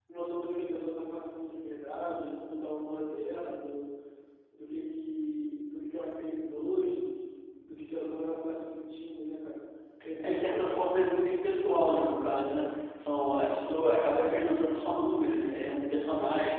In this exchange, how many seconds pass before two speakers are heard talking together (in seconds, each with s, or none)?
10.2 s